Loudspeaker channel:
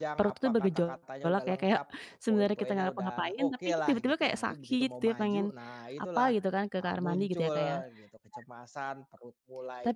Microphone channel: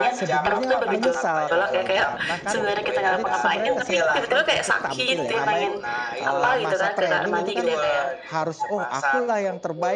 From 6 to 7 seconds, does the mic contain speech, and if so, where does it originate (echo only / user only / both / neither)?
both